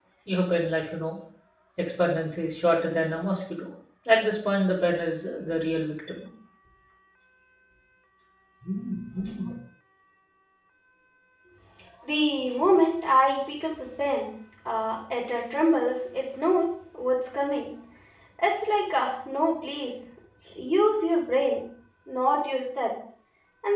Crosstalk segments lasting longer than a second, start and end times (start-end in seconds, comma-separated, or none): none